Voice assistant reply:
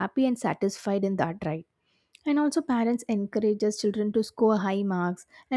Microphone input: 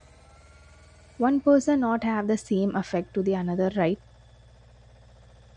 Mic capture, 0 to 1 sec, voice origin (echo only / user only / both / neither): neither